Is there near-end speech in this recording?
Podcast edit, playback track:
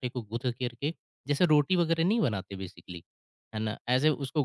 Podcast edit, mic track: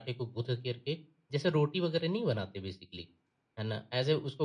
No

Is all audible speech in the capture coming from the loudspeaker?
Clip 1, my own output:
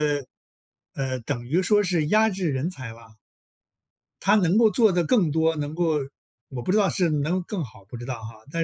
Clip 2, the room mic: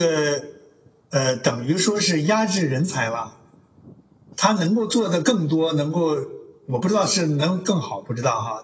Yes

